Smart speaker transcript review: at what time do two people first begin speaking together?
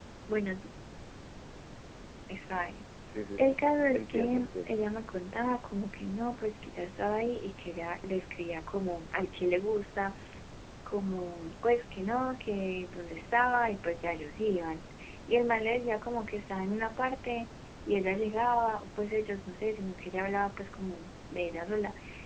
3 s

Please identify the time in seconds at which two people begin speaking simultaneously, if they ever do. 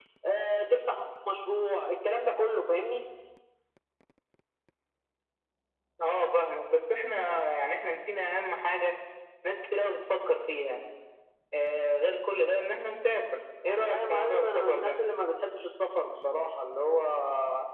14 s

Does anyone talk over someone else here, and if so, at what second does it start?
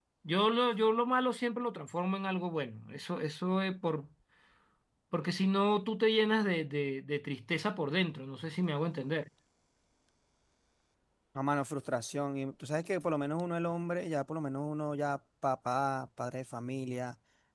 none

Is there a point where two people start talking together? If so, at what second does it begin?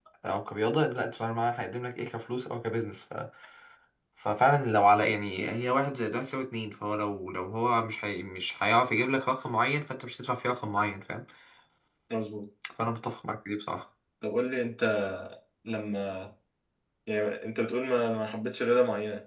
none

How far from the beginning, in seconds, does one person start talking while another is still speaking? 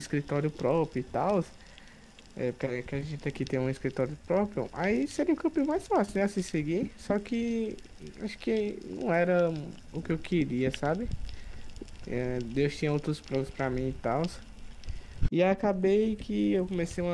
none

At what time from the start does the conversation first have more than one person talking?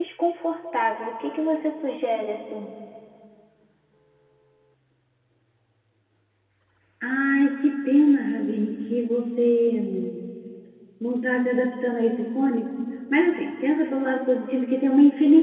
none

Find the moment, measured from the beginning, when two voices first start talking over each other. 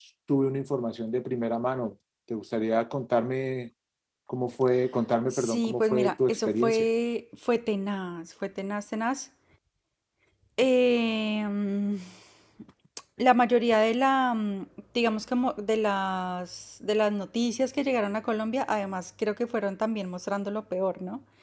5 s

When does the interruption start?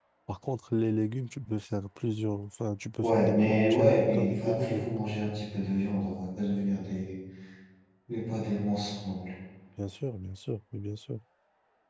3 s

